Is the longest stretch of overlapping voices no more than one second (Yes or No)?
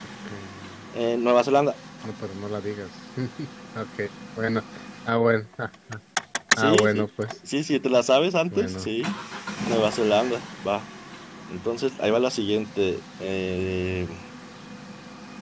Yes